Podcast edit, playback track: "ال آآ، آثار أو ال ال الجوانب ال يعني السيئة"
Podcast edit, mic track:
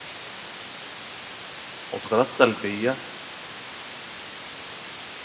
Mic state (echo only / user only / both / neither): user only